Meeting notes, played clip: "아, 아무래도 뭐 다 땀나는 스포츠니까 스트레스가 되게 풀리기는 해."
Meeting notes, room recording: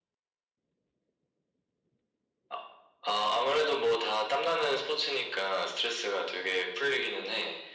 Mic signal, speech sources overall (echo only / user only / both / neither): echo only